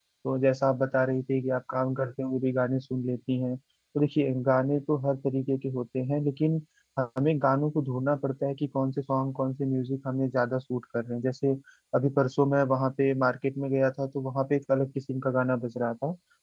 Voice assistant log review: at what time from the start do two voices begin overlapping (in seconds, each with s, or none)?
none